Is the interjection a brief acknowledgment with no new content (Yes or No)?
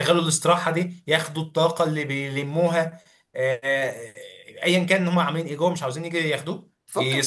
No